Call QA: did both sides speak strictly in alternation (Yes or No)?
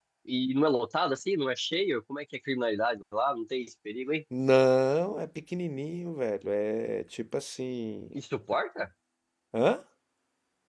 Yes